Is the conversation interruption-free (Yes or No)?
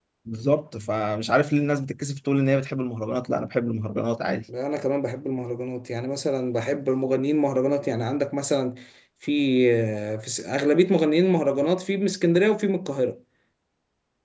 Yes